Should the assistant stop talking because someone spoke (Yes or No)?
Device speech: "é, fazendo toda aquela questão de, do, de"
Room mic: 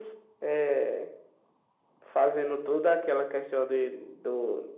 No